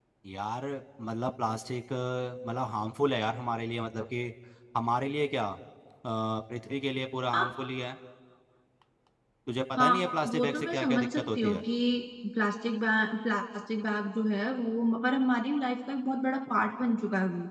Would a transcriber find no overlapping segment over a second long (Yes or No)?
No